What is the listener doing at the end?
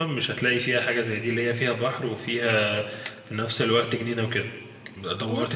taking over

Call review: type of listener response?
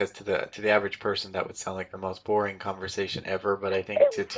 listening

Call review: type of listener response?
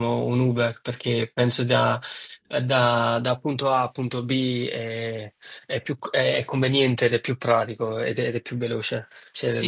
taking over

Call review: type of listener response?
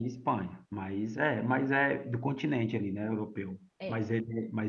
listening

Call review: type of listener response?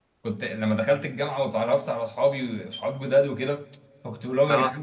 listening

